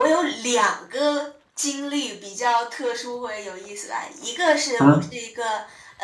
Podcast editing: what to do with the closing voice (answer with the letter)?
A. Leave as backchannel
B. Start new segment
A